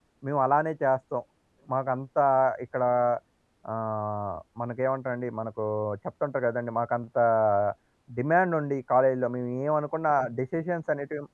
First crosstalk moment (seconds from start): none

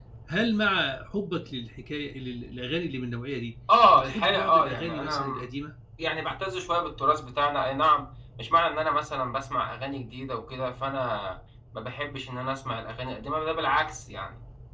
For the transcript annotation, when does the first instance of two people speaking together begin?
3.7 s

